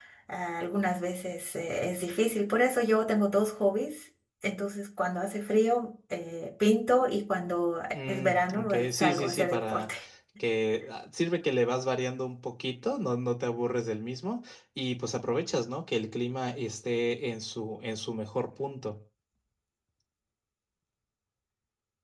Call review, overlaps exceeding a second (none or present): present